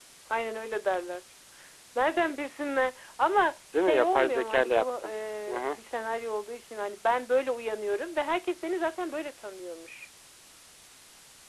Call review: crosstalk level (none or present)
present